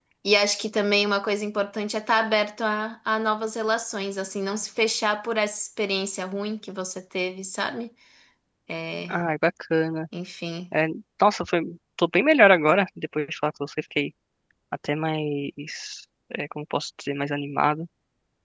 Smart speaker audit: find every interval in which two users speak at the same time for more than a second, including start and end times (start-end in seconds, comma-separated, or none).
none